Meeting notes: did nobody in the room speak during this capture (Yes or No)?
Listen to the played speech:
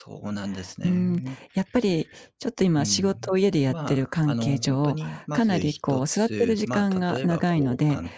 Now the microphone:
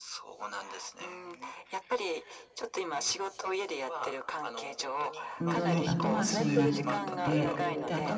No